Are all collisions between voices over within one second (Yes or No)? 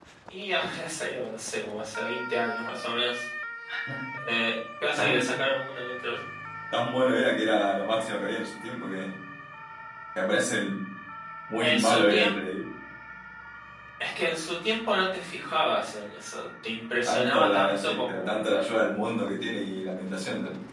No